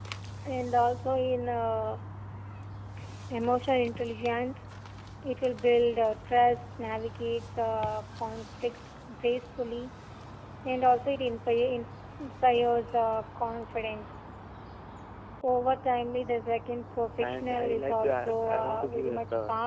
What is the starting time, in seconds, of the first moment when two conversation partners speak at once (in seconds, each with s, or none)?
17.2 s